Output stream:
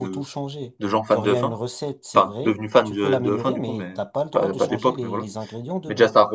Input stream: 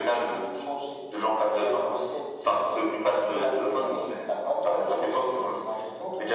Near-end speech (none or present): none